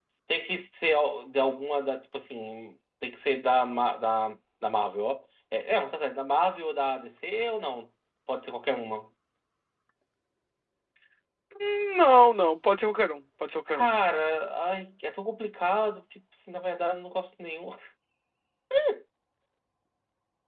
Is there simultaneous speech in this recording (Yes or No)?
No